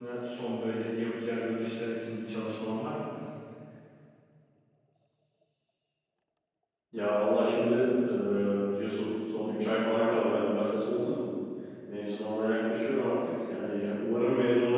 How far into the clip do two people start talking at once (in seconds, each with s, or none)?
none